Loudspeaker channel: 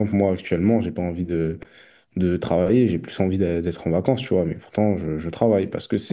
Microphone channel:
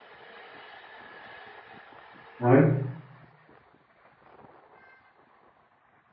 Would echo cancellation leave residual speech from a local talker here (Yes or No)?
Yes